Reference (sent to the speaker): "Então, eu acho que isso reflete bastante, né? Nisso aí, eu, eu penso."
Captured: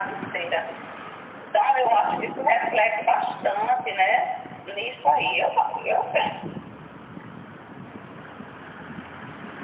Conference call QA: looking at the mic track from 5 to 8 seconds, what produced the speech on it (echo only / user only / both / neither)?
echo only